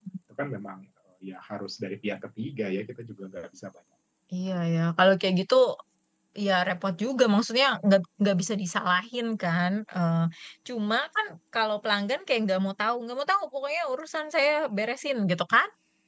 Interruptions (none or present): none